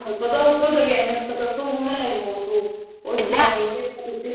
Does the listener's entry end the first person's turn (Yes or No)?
No